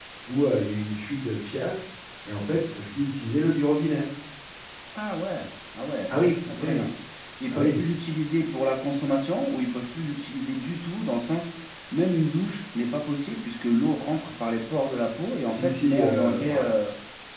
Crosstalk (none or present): present